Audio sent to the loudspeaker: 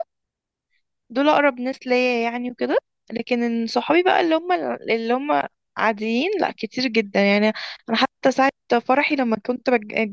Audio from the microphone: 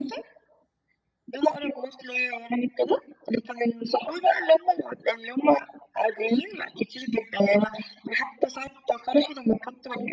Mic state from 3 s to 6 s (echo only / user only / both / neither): echo only